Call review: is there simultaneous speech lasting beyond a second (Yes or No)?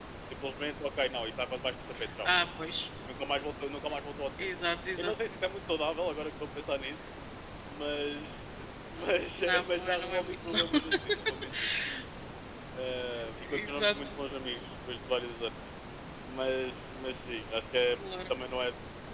Yes